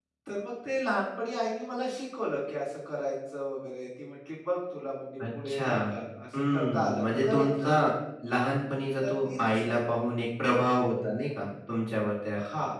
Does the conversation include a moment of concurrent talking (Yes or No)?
Yes